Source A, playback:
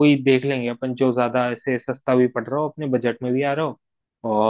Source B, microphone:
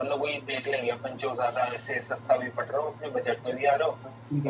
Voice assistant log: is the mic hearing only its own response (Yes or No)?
No